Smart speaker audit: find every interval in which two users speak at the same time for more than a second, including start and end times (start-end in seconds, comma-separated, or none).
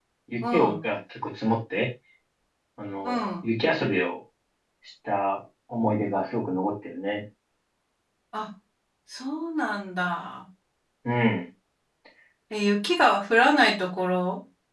none